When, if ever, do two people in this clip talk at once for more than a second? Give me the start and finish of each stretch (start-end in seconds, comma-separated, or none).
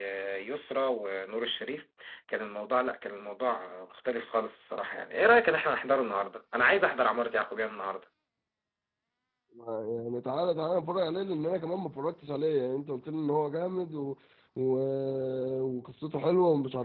none